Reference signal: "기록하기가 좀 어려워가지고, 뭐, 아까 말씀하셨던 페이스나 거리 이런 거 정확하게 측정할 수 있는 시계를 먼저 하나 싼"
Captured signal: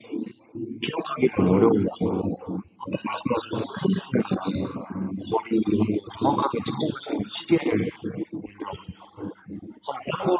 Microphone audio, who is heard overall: echo only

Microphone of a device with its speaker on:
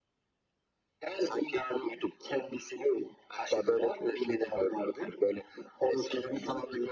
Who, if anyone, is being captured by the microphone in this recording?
echo only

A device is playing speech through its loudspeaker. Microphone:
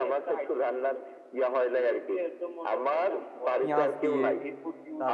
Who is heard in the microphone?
both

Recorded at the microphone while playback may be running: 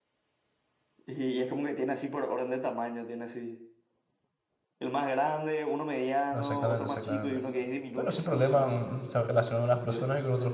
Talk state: both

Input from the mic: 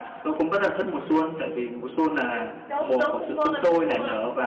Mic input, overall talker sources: both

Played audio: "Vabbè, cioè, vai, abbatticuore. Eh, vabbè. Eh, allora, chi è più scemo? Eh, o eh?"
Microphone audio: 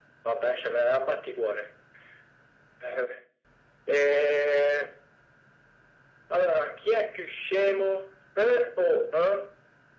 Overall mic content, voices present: echo only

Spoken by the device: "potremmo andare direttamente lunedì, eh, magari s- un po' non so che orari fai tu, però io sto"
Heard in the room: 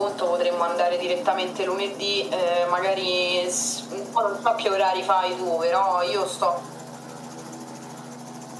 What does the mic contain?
echo only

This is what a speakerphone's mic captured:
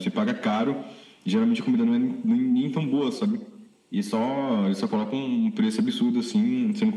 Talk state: echo only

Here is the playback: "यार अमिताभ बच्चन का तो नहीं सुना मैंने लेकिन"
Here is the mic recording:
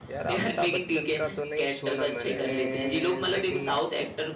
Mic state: both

